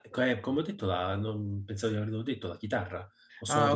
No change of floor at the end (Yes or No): Yes